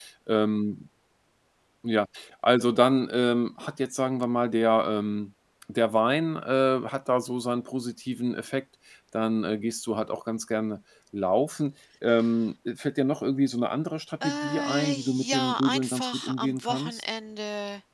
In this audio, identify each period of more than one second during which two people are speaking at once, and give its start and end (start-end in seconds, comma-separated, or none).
14.2-17.0